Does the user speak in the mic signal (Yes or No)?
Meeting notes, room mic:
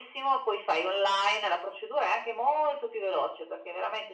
No